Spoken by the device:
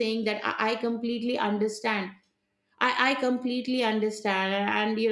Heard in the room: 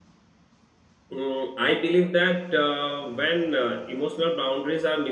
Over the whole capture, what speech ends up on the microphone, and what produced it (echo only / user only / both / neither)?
user only